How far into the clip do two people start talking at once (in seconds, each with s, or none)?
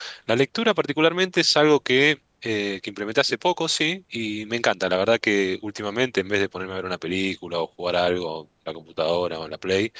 none